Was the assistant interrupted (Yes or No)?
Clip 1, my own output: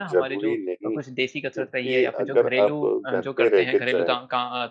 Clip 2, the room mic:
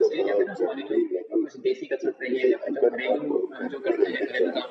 No